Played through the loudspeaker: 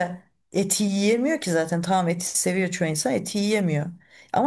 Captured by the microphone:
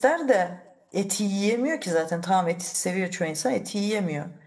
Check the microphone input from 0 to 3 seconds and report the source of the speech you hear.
echo only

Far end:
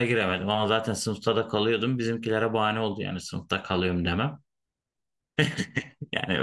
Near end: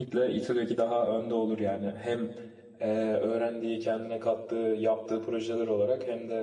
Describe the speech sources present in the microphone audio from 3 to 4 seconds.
user only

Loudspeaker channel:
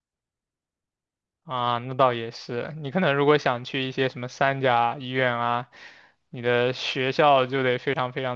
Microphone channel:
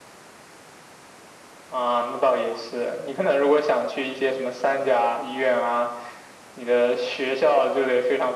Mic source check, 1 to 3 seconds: echo only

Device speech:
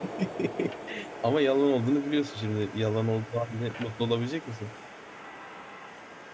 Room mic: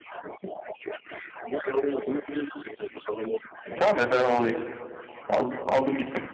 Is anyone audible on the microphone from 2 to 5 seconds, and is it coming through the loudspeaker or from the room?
both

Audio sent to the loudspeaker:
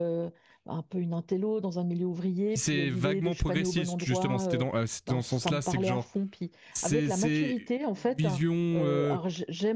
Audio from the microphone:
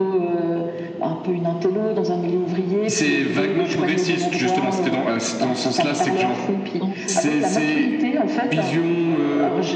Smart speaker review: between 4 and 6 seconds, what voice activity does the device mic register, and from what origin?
echo only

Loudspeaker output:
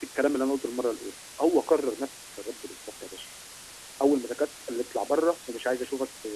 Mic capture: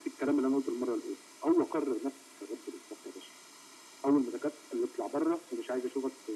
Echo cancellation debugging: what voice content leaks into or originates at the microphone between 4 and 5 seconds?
echo only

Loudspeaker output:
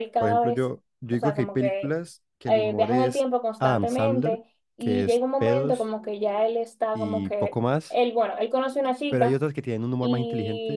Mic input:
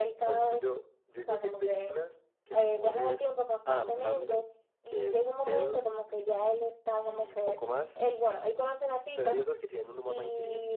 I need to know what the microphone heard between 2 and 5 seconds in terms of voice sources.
echo only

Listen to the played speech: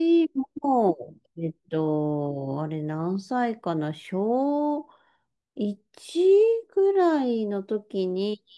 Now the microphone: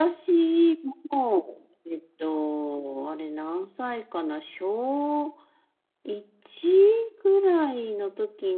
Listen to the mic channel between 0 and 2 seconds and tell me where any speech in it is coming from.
echo only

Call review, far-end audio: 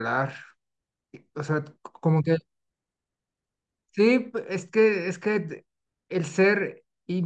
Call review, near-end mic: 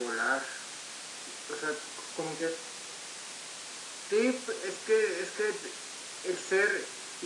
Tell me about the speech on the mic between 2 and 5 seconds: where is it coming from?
echo only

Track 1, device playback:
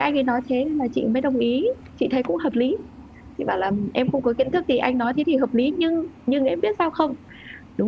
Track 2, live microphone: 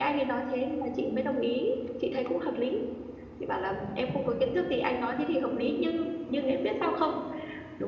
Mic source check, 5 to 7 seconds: echo only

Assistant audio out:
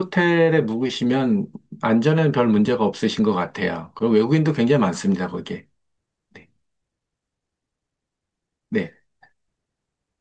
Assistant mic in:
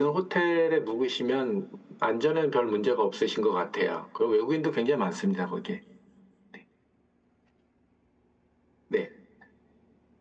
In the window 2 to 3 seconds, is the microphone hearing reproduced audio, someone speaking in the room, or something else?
echo only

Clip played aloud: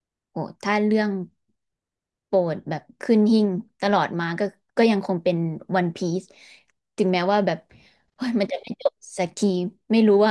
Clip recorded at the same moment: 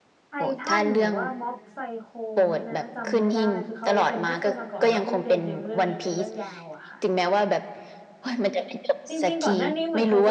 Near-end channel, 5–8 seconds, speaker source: both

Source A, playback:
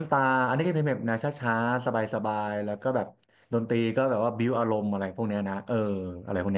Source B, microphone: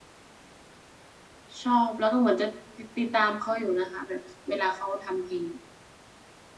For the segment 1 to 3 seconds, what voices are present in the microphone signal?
user only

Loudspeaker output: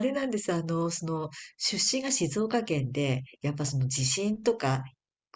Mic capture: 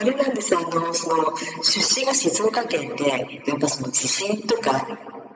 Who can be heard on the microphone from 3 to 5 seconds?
echo only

